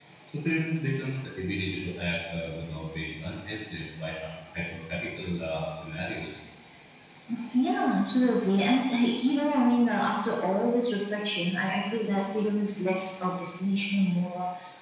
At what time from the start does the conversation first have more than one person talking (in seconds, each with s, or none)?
none